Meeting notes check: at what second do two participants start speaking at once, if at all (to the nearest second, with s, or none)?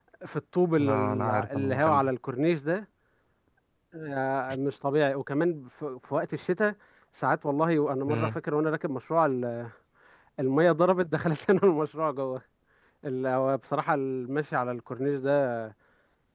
1 s